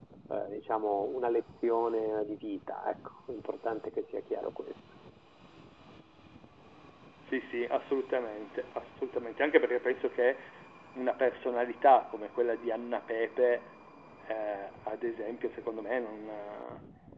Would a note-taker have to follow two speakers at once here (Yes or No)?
No